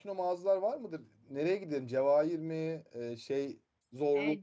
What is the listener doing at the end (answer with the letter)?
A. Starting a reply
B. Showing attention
A